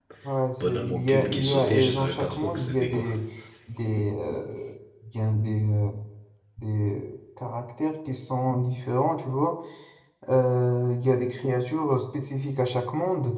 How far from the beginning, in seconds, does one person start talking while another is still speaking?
0.6 s

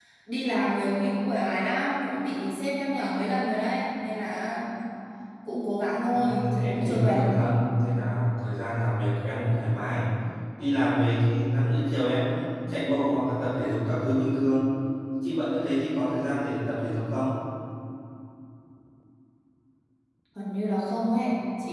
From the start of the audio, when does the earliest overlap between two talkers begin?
6.2 s

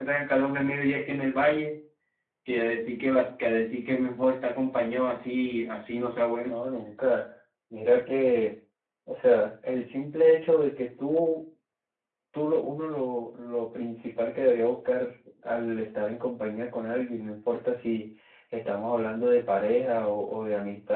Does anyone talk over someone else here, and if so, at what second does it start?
none

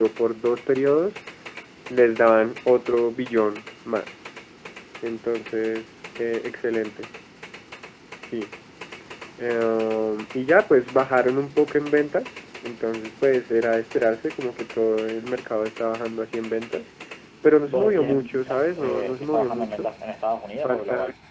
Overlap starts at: 17.6 s

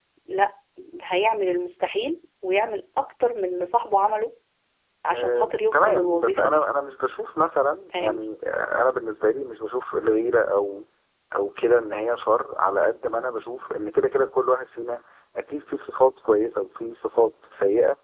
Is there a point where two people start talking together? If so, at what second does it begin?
5.1 s

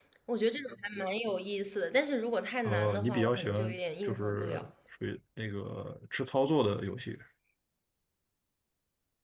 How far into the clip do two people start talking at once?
2.6 s

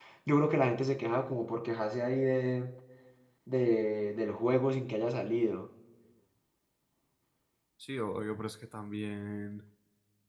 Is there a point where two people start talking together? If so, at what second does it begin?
none

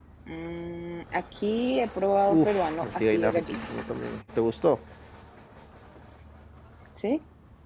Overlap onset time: 2.3 s

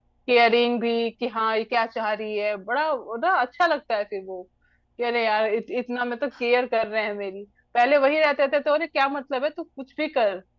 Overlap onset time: none

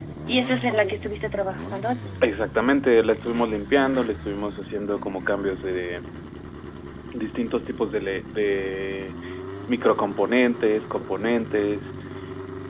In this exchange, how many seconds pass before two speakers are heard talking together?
none

